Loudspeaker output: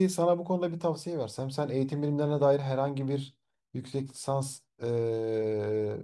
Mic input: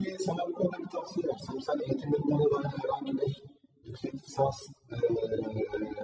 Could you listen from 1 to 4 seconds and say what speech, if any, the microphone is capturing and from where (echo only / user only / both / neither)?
echo only